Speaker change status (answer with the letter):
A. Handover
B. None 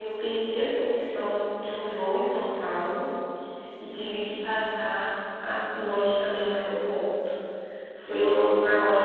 B